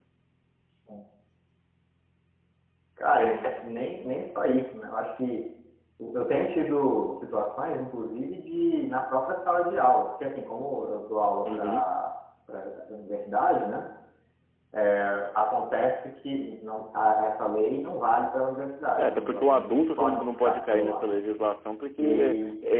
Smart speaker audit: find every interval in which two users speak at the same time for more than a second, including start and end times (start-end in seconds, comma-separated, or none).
19.0-21.0